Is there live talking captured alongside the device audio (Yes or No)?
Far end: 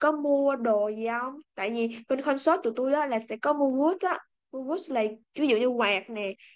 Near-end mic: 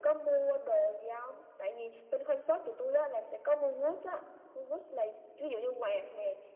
No